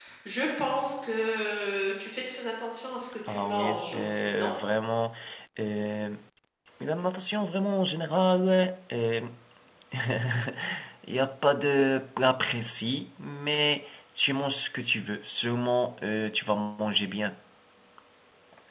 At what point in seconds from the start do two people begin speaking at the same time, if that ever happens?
3 s

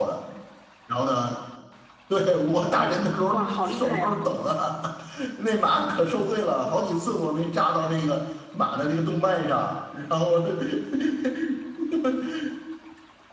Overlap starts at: 3 s

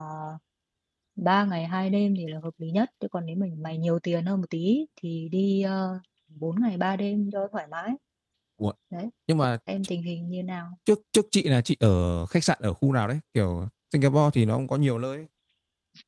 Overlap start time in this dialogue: none

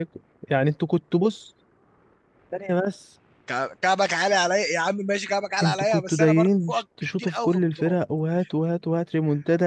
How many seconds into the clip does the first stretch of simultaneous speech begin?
6 s

